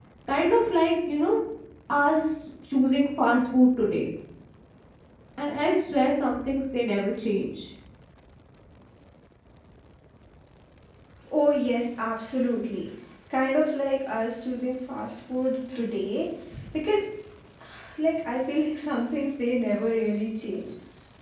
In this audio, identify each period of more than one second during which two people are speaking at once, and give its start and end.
none

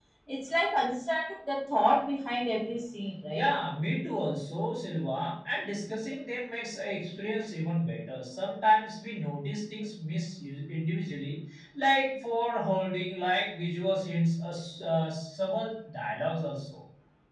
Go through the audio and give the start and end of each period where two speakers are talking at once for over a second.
none

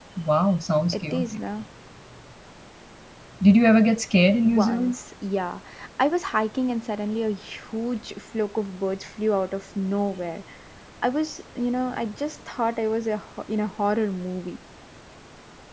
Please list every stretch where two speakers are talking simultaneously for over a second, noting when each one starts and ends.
none

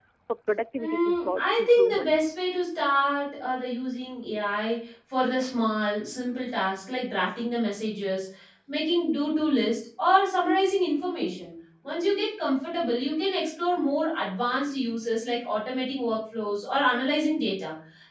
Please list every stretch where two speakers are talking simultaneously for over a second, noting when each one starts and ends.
0.8-2.2

